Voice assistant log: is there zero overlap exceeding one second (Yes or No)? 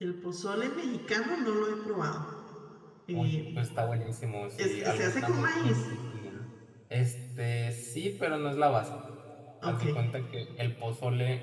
No